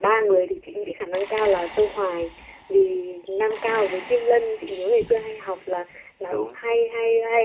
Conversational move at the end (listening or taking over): listening